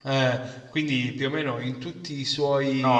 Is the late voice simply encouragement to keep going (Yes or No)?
No